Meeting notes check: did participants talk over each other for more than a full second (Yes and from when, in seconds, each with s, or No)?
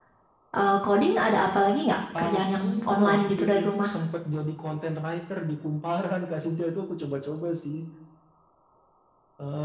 Yes, from 2.1 s